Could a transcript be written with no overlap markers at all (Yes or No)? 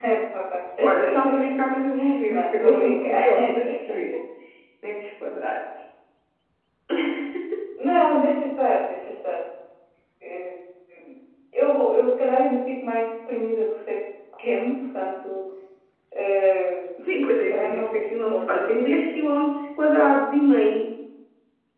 No